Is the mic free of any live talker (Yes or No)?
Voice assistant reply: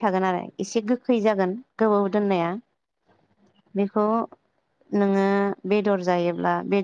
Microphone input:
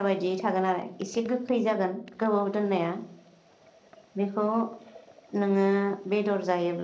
Yes